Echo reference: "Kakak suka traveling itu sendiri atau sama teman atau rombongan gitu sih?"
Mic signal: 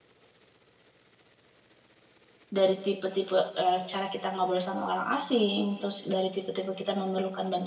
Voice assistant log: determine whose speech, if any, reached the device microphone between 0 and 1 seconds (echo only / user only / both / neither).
neither